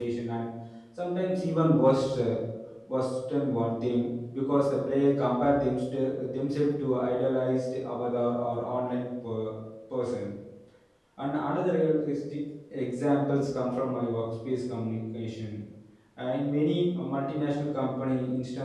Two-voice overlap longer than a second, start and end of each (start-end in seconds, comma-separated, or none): none